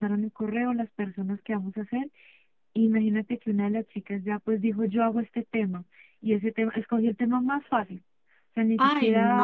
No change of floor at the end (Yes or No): No